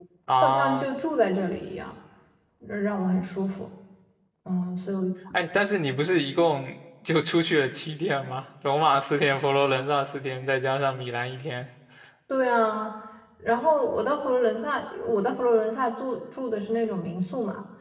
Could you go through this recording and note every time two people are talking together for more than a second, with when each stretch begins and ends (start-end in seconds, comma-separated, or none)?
none